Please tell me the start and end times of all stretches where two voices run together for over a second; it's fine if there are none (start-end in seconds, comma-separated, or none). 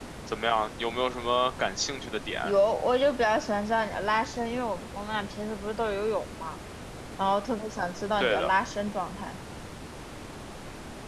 none